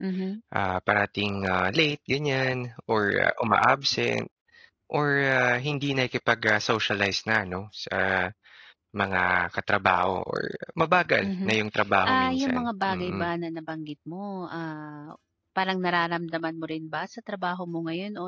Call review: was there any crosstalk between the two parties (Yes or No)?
Yes